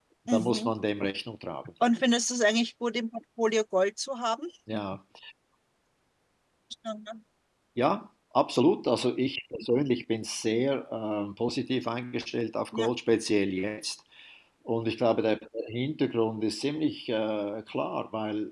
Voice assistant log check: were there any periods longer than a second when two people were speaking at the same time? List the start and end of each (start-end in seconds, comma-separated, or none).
none